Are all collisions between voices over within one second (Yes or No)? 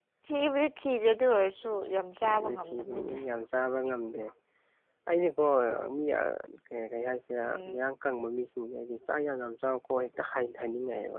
No